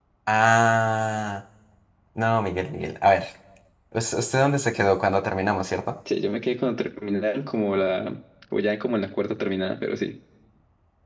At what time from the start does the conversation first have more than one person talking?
none

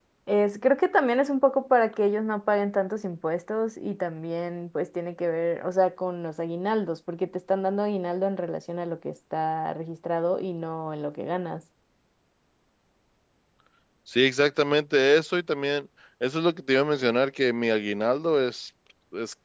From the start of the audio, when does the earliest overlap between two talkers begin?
none

